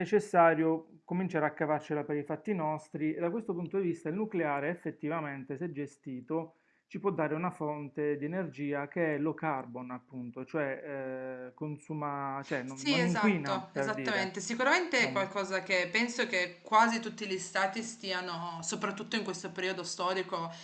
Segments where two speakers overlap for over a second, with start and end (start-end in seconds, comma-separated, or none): 12.8-14.3